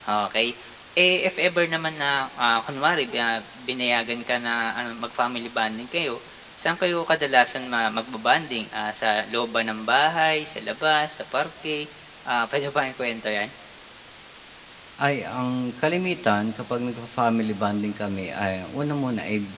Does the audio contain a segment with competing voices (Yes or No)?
No